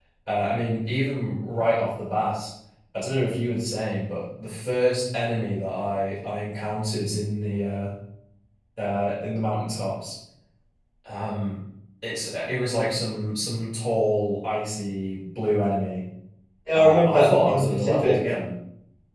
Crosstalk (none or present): present